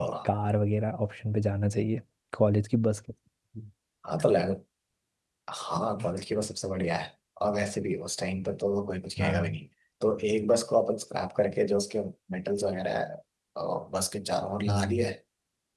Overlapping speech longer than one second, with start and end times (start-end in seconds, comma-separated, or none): none